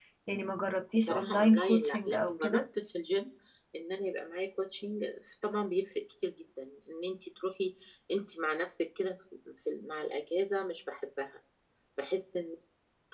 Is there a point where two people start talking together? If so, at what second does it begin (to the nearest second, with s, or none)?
1 s